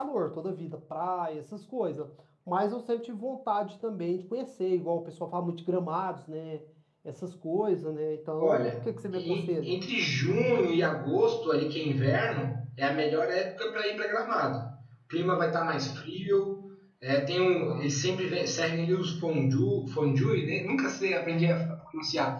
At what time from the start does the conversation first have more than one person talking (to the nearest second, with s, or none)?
8 s